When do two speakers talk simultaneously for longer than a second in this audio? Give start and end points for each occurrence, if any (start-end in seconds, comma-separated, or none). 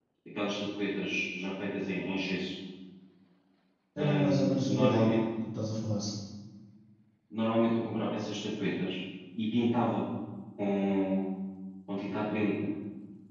4.0-5.2